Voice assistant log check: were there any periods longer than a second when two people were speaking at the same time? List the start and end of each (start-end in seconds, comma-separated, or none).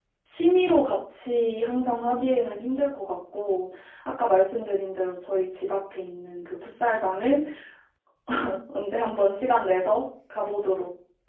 none